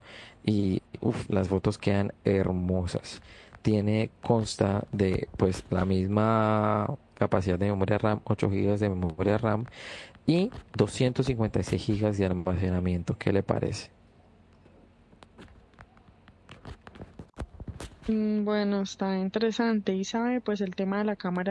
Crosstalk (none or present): none